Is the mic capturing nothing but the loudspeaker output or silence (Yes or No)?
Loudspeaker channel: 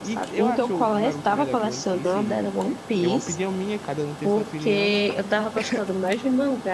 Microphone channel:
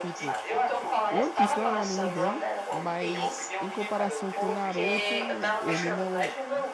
No